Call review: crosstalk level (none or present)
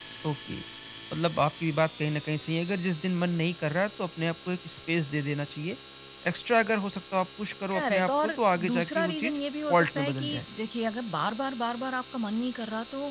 present